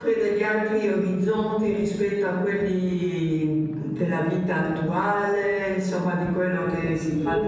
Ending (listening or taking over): taking over